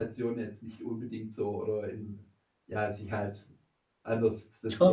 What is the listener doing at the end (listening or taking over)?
listening